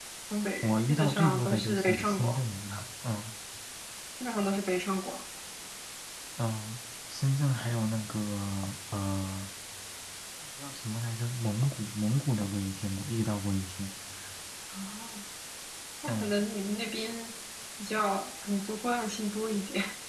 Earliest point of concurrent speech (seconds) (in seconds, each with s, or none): 0.6 s